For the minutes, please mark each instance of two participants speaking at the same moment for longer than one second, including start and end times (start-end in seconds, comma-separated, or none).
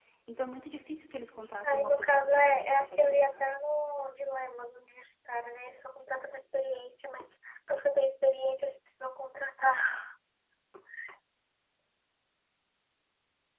1.6-3.4